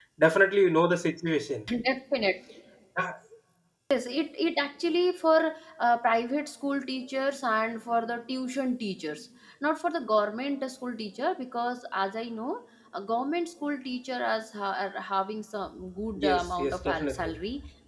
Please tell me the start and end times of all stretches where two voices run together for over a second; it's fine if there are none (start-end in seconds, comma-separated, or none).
16.2-17.4